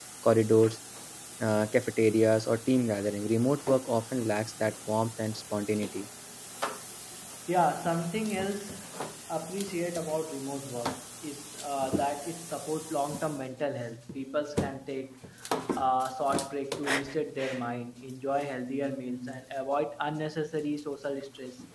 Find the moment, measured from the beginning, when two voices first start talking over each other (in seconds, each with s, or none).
none